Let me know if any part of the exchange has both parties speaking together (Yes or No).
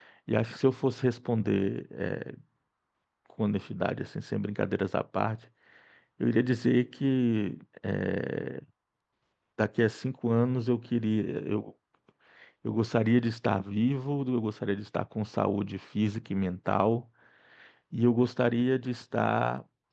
No